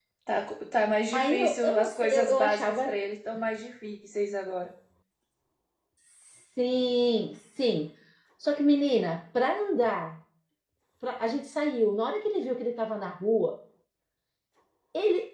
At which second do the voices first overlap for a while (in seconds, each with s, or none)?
1.1 s